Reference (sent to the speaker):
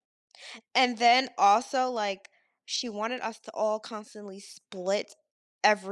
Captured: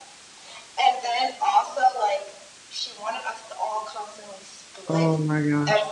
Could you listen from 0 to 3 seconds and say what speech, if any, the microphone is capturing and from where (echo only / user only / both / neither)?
echo only